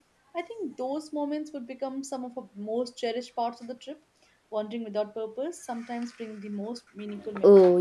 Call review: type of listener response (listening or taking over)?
taking over